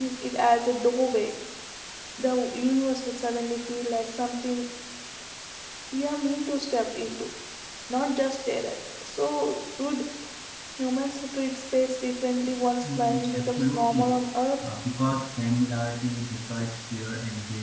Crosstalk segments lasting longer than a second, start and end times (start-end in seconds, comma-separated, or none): 12.8-14.1